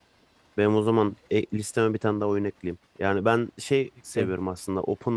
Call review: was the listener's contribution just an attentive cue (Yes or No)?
Yes